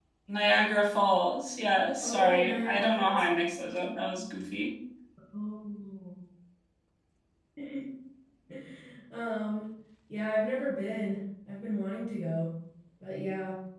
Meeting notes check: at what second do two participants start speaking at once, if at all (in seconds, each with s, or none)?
2.0 s